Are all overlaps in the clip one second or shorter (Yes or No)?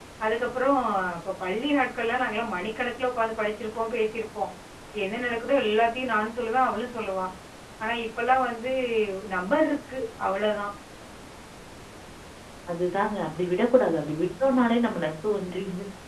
Yes